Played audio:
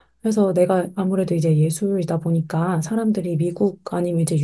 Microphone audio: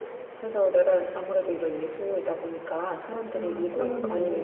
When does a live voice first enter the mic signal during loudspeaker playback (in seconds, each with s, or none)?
3.4 s